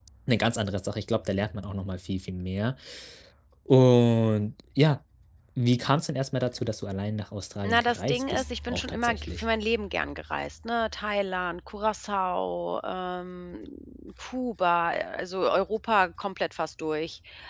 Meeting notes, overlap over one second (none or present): present